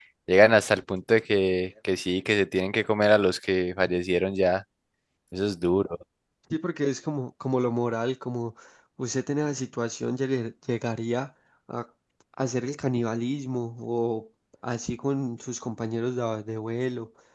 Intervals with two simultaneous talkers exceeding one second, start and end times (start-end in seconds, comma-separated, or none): none